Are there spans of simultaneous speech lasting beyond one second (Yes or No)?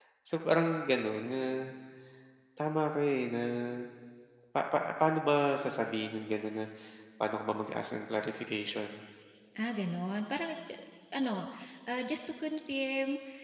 No